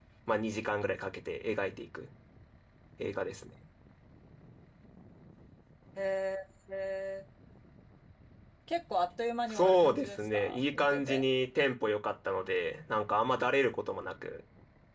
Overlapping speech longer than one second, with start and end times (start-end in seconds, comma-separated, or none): 9.5-11.2